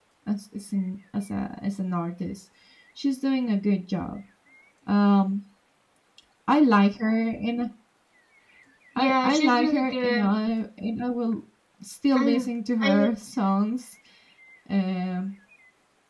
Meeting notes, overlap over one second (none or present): present